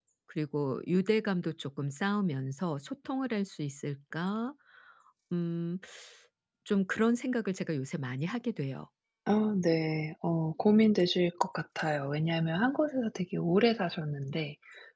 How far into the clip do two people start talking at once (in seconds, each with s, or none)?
none